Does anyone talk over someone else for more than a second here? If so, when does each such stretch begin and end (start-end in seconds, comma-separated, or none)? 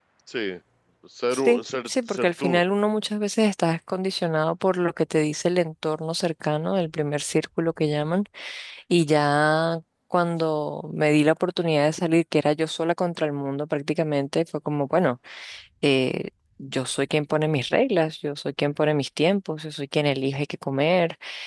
1.3-2.6